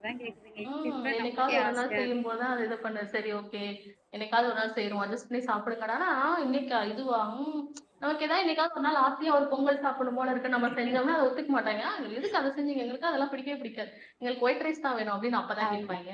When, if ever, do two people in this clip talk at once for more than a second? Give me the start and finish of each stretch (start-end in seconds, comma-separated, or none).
0.8-2.1